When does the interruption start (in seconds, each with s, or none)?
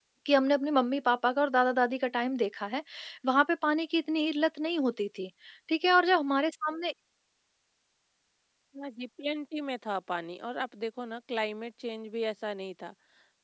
none